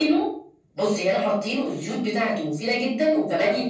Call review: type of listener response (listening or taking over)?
taking over